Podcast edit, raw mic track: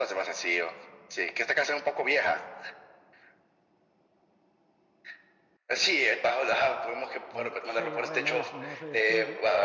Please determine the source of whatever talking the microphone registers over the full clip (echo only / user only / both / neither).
both